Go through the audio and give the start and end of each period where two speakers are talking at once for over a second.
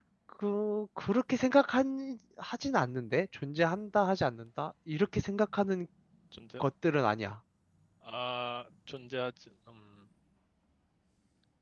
none

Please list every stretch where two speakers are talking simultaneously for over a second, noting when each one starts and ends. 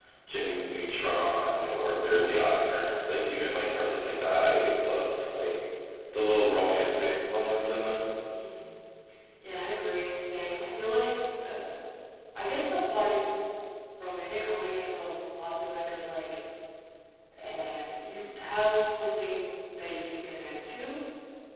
1.8-3.0

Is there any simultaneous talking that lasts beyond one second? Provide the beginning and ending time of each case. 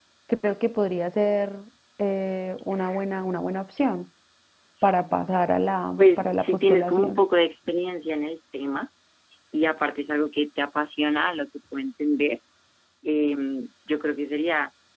6.0-7.2

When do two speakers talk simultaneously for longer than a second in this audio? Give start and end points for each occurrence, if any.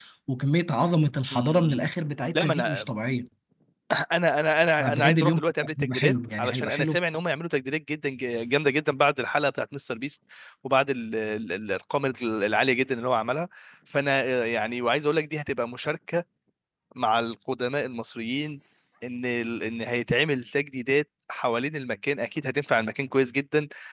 4.8-7.0

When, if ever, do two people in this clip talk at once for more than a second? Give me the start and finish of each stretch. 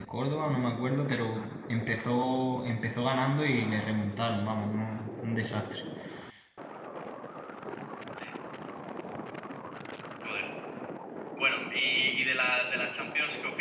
none

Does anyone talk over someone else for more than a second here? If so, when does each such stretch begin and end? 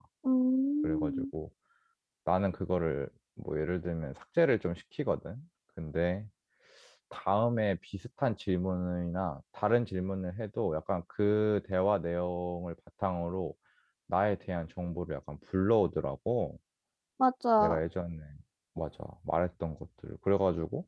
none

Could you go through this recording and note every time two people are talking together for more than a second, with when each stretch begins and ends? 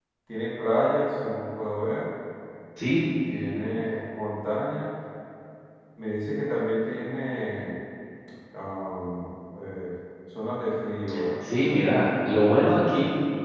none

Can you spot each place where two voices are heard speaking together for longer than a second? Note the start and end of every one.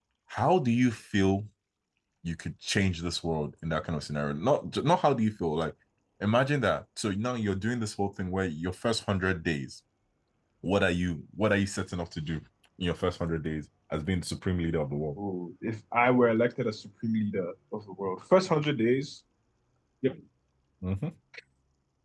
none

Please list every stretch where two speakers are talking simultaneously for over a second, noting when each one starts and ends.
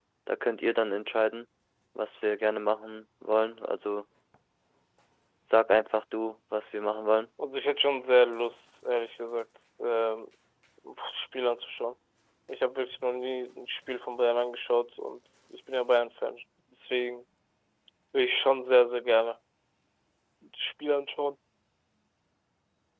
none

